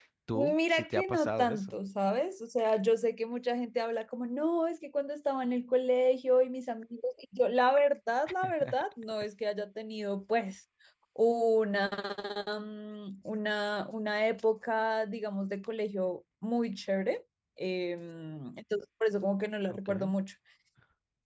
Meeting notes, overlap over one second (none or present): present